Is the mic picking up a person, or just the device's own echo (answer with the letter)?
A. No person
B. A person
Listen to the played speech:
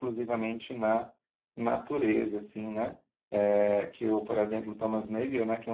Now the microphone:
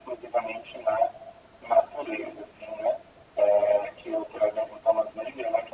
A